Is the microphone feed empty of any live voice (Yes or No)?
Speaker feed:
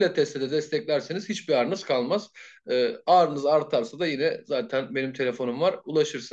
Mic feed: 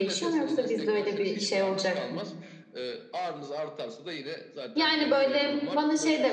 No